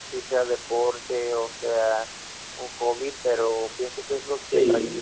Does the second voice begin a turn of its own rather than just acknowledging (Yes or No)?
No